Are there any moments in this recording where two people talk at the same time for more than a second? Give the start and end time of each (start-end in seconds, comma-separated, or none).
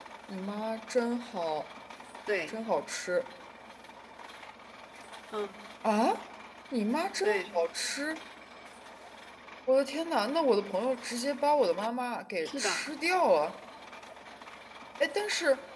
none